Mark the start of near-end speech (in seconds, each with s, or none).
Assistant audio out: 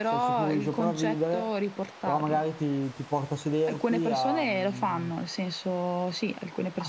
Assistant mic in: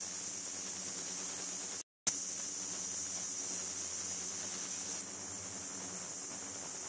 none